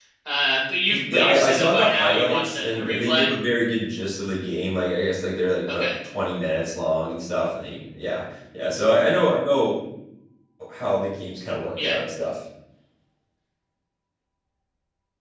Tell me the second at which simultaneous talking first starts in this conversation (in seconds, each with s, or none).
0.9 s